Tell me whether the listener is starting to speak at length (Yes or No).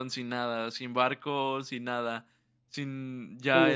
Yes